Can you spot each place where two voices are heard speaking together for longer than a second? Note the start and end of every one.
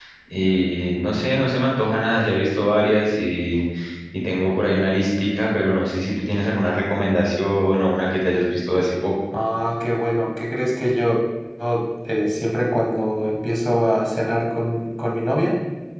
none

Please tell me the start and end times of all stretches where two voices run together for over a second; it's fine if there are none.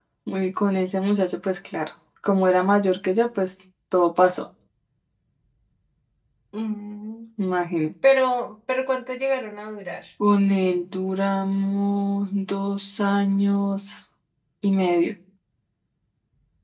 none

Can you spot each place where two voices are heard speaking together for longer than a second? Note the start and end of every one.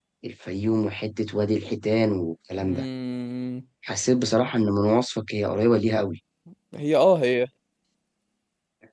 none

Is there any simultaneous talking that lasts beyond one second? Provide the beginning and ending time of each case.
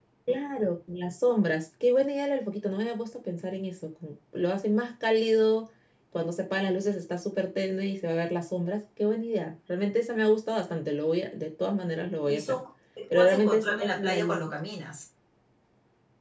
13.1-14.4

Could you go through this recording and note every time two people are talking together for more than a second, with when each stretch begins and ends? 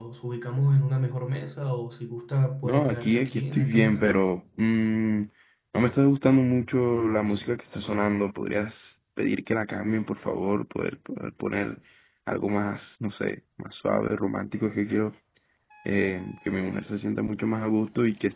2.6-4.0

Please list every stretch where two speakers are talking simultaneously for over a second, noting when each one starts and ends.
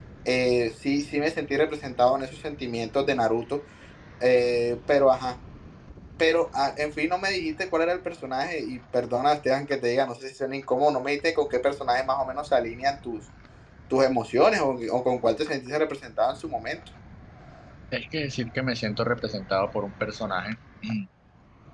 none

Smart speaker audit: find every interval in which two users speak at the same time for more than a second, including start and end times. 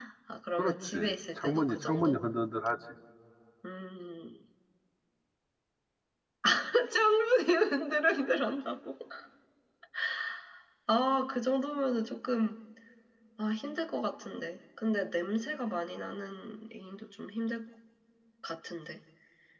0.6-2.2

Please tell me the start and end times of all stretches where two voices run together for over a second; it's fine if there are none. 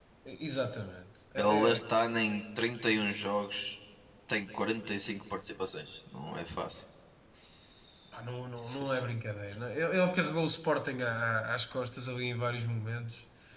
none

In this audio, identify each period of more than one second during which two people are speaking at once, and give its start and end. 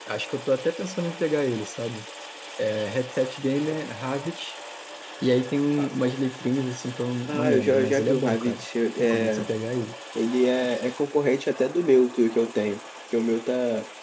7.2-8.6

